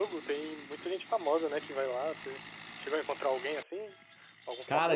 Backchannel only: No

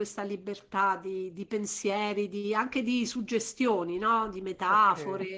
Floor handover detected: Yes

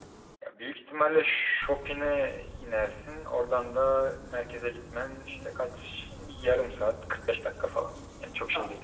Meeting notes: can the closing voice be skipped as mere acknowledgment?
No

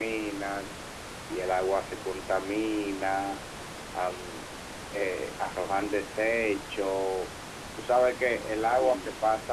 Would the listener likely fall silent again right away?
Yes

